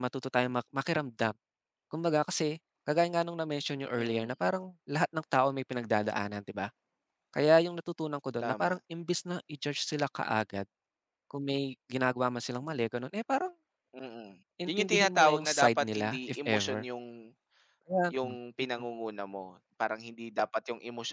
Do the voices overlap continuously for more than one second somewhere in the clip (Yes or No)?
Yes